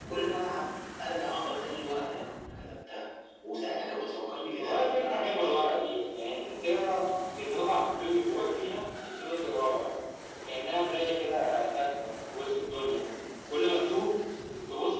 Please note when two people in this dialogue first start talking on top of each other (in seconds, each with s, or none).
4.6 s